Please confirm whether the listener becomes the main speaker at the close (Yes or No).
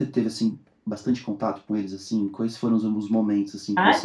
Yes